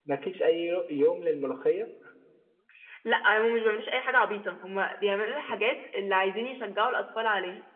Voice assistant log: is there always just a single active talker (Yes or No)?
Yes